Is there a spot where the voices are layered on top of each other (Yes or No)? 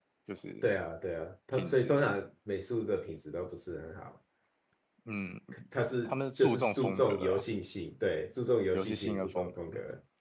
Yes